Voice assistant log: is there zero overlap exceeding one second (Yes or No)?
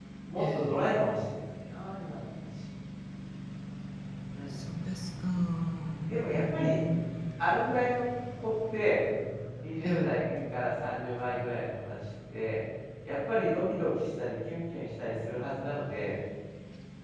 Yes